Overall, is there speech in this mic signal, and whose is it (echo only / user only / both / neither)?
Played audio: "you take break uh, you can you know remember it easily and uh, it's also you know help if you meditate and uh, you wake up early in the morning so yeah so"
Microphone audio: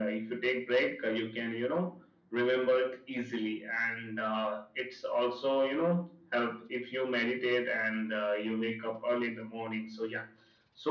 echo only